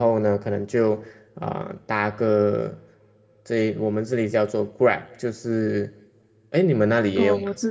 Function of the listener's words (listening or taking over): taking over